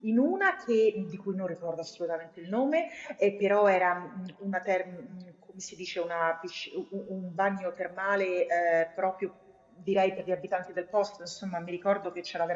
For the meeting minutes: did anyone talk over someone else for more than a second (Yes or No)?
No